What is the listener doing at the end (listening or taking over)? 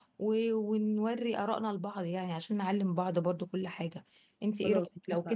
listening